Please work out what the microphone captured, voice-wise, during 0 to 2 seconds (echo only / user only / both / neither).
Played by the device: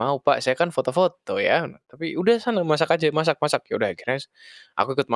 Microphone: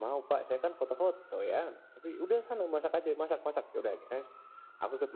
echo only